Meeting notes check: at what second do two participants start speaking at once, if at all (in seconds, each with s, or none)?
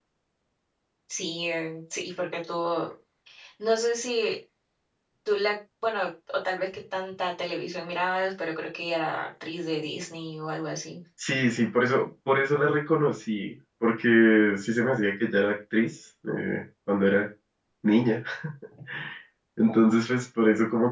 none